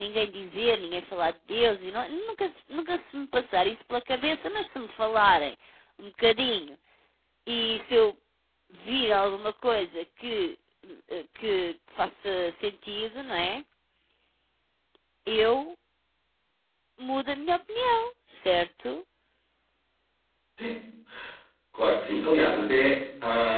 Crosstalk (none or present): none